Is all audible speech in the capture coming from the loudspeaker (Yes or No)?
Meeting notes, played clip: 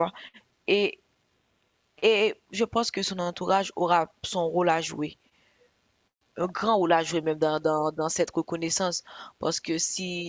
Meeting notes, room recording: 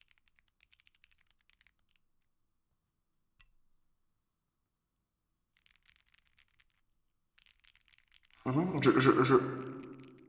No